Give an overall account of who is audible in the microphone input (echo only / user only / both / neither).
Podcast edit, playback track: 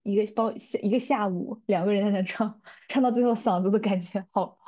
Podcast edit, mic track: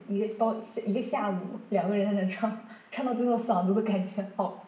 echo only